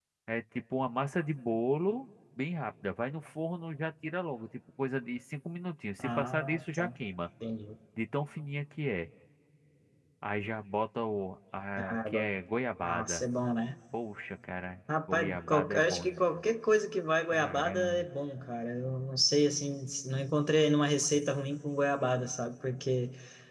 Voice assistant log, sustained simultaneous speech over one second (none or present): present